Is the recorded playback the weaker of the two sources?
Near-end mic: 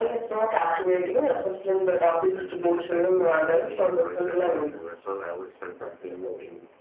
No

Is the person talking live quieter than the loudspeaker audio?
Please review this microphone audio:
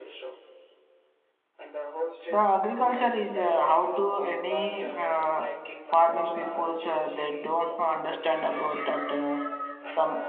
No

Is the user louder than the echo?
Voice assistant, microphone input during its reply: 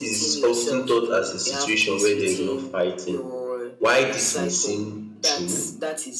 Yes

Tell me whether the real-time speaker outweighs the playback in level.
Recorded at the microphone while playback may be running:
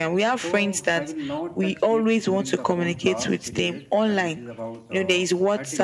No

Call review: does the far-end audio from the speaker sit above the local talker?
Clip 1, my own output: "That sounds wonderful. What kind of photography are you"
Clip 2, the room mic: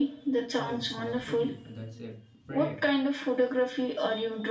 Yes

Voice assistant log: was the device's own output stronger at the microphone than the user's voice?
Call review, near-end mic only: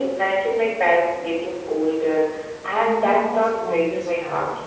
Yes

